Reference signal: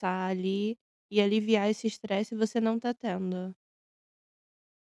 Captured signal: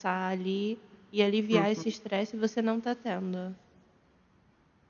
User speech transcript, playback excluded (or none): Uhum.